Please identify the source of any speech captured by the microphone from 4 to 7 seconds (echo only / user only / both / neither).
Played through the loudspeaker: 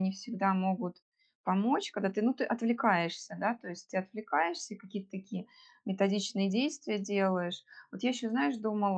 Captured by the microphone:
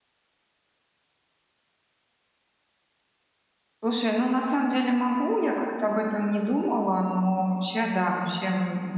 user only